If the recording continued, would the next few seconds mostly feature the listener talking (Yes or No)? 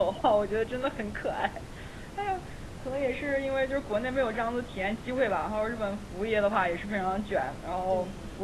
No